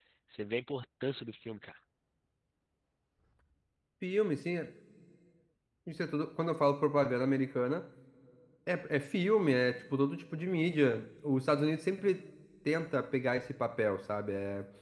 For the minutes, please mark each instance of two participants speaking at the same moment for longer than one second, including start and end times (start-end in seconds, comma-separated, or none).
none